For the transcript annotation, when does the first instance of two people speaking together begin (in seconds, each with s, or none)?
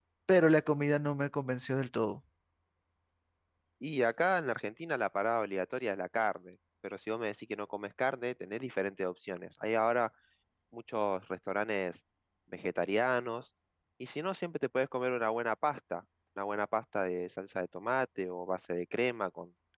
none